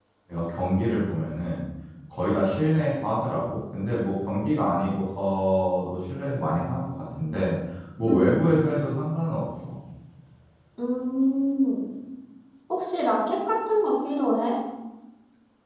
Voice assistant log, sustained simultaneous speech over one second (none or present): none